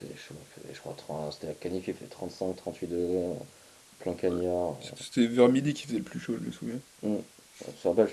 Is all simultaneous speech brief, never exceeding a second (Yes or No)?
Yes